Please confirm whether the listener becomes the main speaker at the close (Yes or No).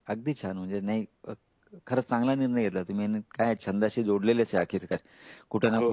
No